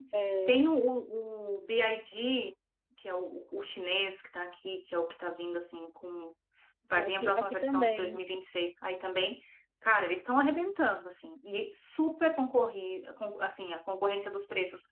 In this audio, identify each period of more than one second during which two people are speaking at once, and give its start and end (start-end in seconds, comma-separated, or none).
6.9-8.1